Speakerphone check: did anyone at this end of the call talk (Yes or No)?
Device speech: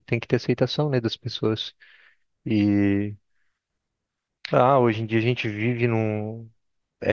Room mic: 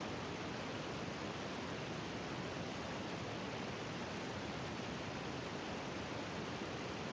No